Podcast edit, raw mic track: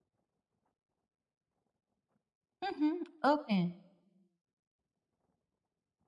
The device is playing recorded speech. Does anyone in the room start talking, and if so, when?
2.6 s

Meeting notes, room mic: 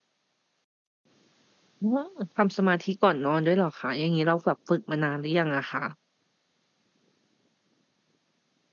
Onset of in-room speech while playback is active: 1.9 s

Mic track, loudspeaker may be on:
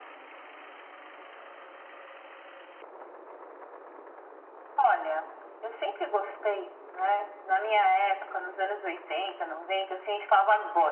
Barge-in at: none

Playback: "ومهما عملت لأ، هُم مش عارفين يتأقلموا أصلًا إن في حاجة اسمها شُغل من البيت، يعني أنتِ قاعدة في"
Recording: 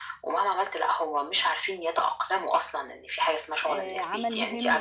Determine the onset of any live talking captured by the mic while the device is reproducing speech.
3.7 s

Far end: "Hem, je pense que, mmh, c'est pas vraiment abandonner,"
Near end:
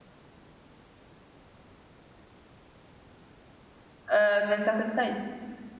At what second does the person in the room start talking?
4.1 s

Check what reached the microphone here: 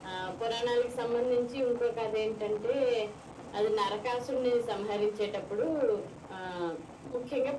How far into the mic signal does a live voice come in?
none

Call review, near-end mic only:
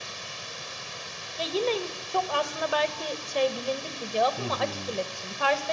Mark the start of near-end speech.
4.4 s

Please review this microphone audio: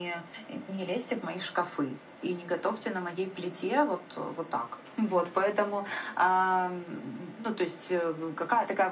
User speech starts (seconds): none

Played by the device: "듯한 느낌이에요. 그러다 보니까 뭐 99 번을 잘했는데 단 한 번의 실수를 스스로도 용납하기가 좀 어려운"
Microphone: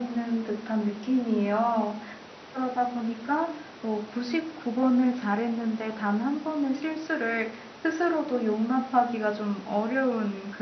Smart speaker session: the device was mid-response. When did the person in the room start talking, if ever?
none

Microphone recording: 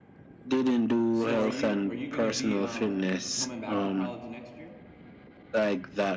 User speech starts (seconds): 1.1 s

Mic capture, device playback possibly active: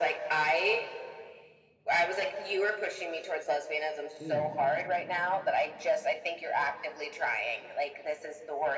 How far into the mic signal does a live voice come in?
4.2 s

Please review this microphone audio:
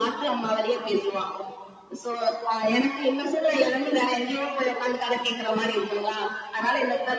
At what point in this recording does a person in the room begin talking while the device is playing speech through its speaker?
none

